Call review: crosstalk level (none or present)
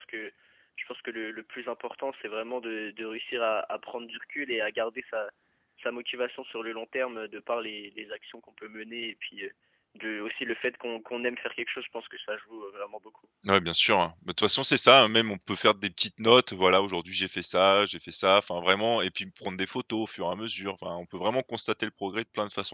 none